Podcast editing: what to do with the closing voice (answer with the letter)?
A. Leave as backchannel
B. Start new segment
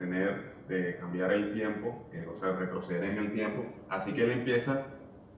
A